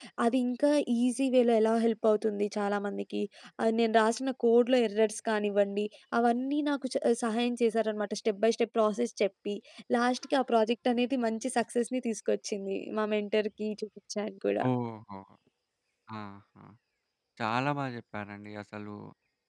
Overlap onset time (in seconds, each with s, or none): none